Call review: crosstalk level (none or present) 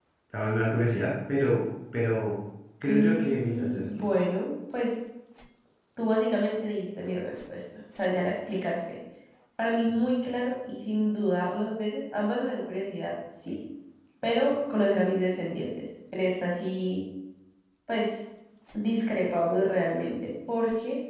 present